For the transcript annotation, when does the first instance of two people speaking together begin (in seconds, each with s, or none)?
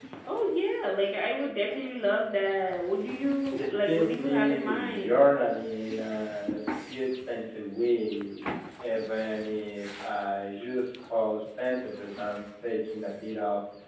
3.5 s